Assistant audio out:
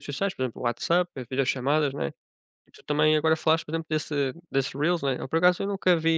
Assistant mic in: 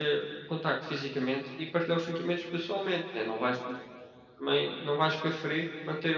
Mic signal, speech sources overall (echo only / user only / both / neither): user only